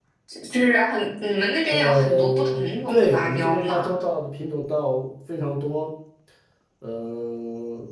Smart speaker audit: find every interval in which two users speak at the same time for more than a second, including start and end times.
1.7-3.9

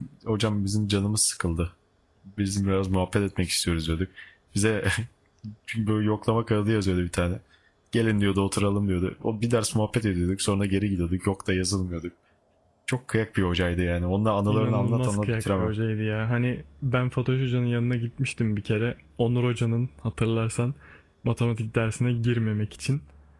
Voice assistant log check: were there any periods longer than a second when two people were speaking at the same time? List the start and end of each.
14.5-15.7

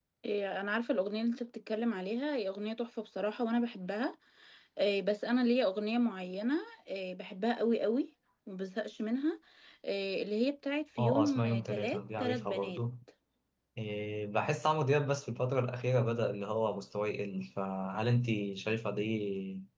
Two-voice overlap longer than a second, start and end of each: 11.0-12.8

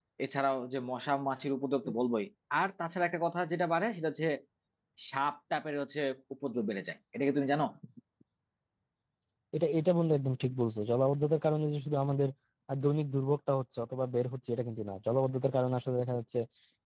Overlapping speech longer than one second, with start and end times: none

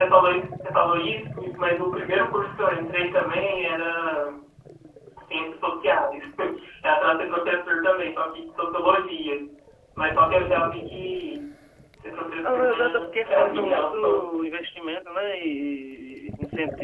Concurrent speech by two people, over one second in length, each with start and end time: 12.4-14.0

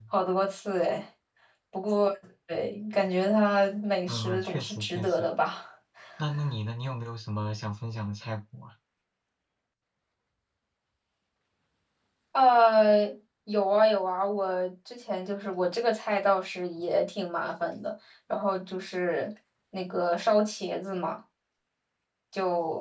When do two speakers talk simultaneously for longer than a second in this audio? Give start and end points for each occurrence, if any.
4.1-5.3

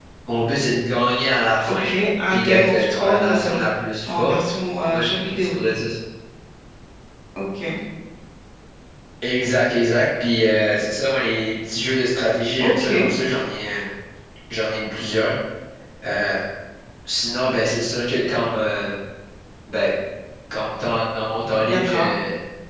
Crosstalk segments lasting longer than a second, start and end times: 2.3-3.6, 4.1-5.5

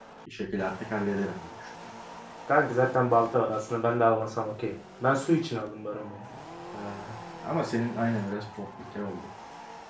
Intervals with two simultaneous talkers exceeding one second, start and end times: none

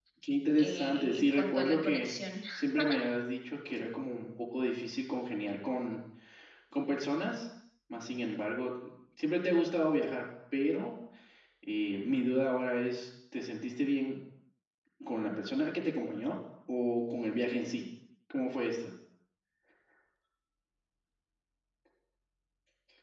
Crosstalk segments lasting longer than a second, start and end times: 0.6-2.1

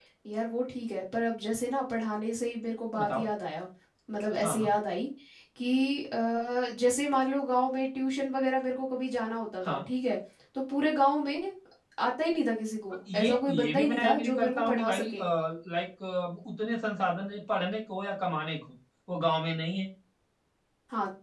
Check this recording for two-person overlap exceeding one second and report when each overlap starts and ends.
13.1-15.1

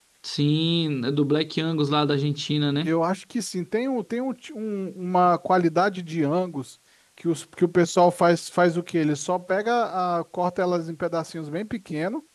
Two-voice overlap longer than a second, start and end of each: none

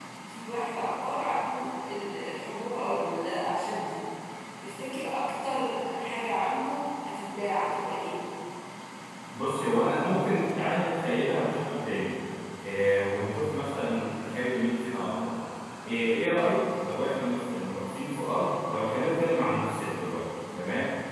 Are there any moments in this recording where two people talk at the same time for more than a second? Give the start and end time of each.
none

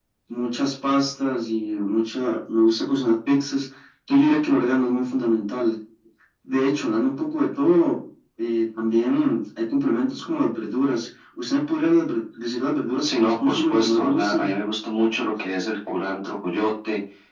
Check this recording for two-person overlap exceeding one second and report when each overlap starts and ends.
13.0-14.5

